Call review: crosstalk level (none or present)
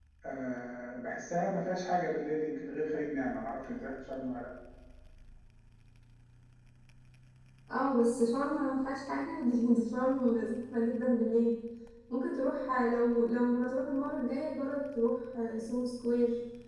none